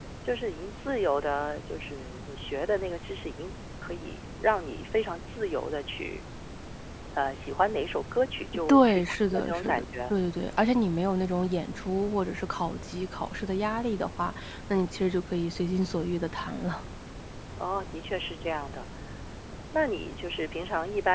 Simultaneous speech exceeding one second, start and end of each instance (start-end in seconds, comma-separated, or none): 8.7-10.1